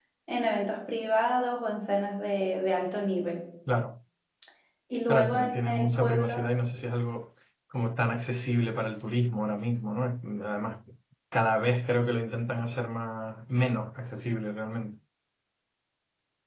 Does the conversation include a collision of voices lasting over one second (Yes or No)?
Yes